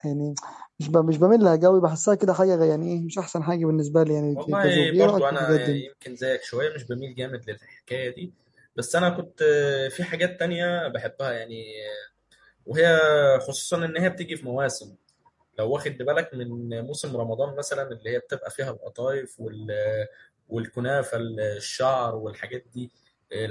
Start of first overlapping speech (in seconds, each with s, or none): 4.3 s